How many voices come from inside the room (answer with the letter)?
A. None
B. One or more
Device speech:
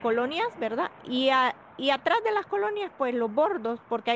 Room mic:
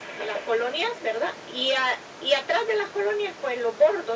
A